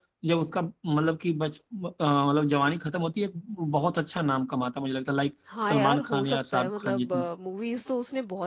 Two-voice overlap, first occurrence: 5.5 s

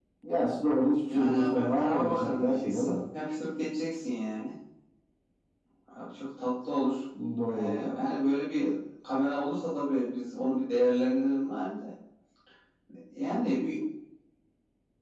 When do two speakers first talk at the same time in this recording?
1.1 s

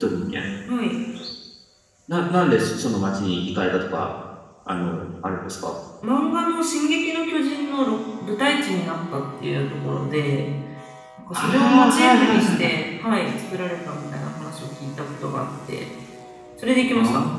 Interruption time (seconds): 11.3 s

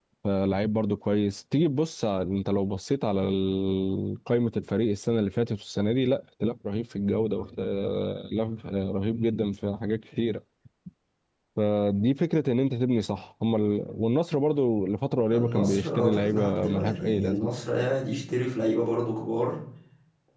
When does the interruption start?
15.3 s

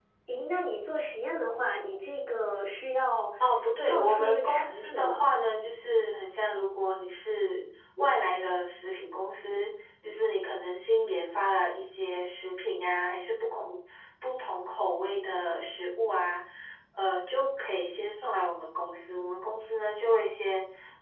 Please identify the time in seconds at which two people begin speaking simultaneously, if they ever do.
3.8 s

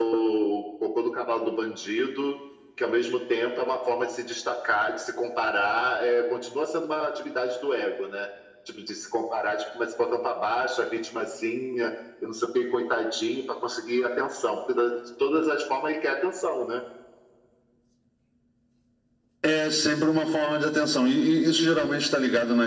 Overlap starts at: none

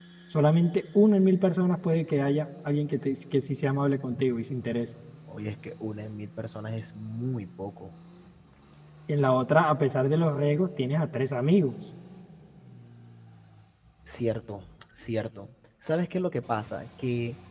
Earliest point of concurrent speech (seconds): none

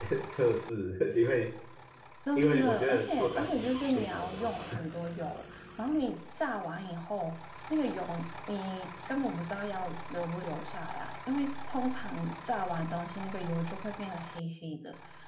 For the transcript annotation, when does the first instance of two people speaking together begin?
2.4 s

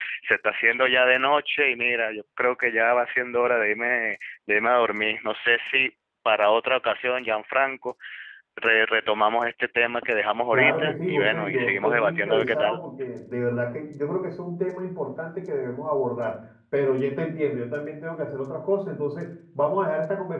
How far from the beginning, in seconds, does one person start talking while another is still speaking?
10.5 s

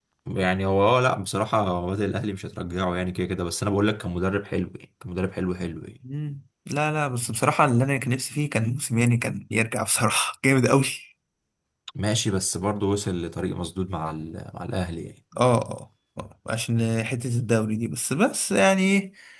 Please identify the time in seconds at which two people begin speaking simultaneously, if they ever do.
none

